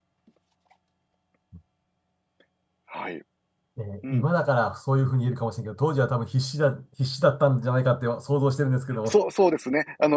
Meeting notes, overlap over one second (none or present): none